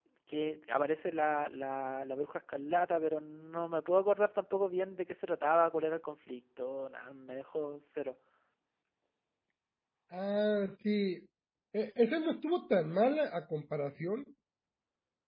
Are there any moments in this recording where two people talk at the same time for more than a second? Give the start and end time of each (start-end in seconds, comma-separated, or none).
none